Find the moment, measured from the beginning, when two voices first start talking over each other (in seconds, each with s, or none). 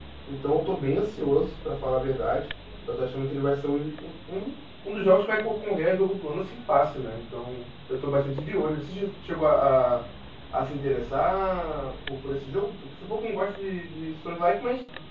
none